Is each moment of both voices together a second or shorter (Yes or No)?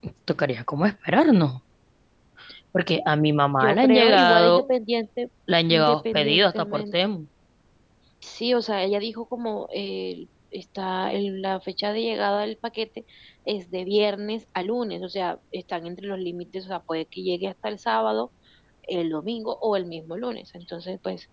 No